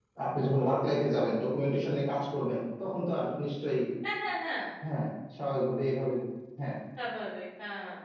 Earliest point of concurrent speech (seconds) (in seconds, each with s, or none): none